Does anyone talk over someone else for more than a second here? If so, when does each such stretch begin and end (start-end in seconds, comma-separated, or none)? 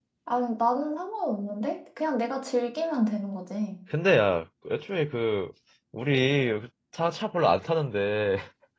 none